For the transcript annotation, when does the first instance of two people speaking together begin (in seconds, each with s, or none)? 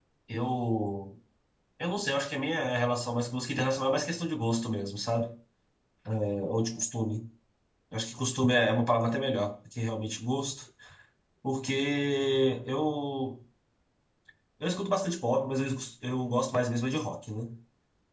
none